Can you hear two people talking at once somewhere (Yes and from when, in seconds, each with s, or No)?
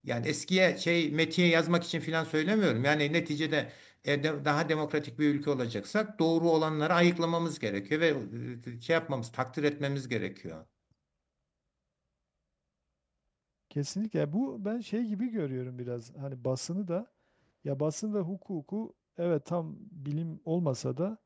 No